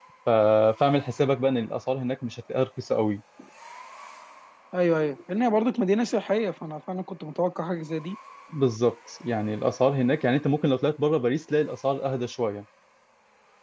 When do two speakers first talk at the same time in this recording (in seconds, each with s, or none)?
none